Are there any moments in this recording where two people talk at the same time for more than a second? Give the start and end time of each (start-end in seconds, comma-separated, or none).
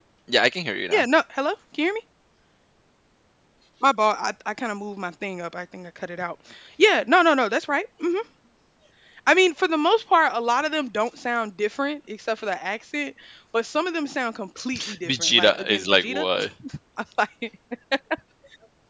15.1-16.2